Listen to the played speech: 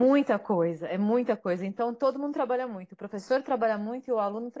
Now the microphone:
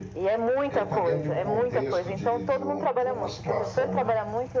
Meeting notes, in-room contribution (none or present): present